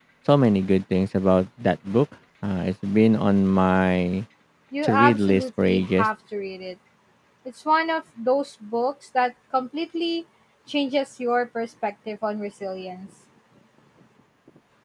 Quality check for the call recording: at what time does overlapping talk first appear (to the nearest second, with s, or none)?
5 s